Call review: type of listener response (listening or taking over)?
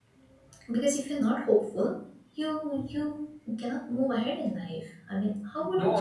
taking over